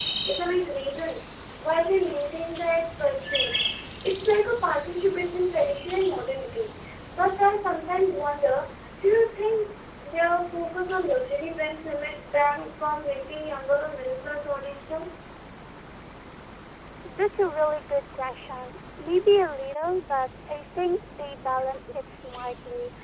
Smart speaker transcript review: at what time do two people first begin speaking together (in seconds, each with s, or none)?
none